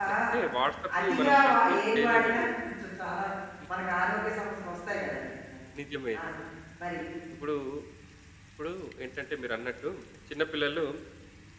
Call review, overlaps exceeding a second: present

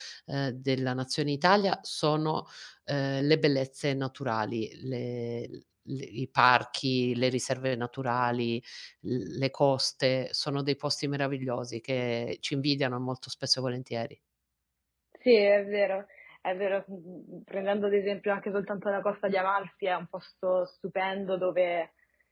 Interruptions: none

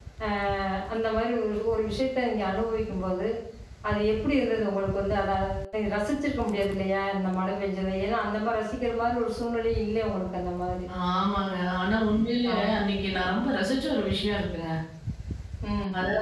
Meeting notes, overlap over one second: none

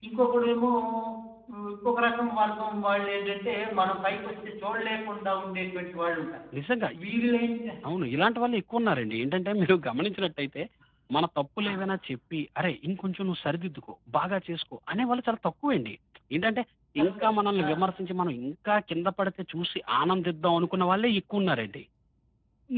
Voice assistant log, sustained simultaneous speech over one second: none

